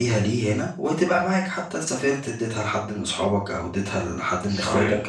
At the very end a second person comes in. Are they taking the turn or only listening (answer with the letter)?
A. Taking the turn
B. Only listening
A